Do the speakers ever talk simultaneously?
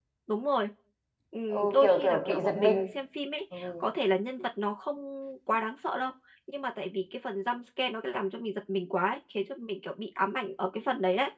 Yes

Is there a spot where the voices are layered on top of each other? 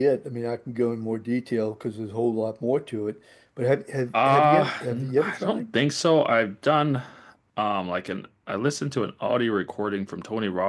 Yes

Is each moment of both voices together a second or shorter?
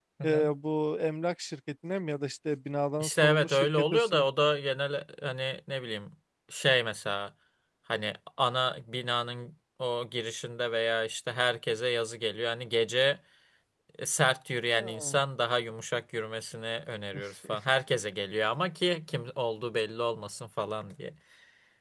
No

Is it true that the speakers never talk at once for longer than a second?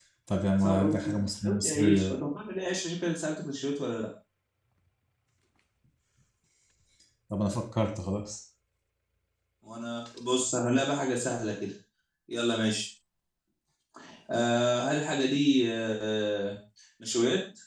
No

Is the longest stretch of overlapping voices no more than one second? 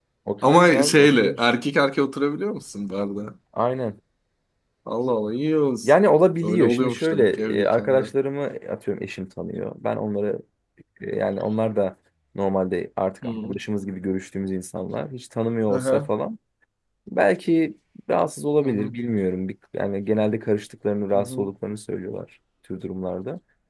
No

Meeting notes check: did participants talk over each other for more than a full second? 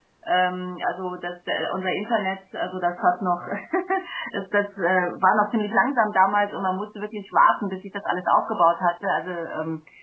No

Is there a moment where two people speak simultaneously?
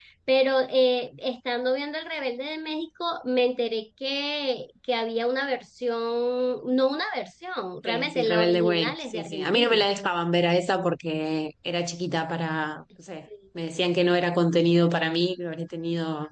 Yes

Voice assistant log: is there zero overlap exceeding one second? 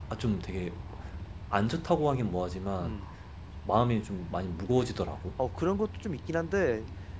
Yes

